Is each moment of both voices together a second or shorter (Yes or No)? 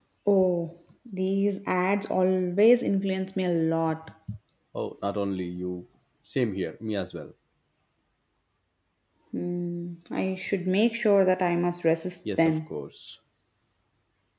Yes